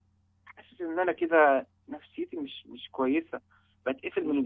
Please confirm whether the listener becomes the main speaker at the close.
No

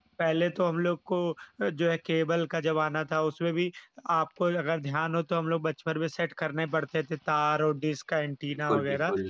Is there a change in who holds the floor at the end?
No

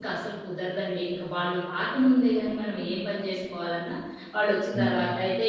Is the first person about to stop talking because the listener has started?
No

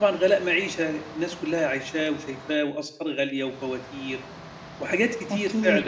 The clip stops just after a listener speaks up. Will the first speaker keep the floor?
Yes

